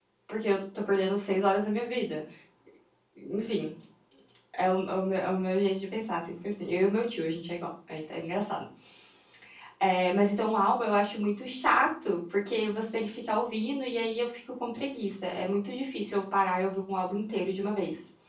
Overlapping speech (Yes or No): No